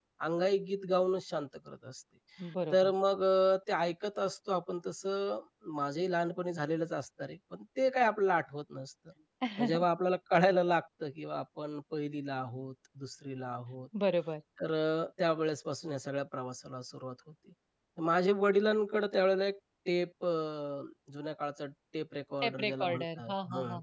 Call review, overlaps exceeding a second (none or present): present